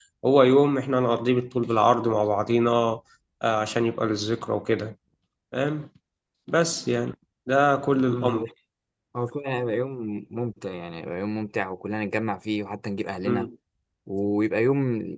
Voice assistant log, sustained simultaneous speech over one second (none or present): none